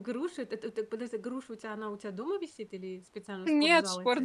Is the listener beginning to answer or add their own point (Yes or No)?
Yes